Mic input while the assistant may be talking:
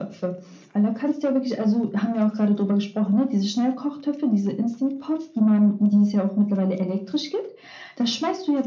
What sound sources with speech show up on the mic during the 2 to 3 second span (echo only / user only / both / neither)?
echo only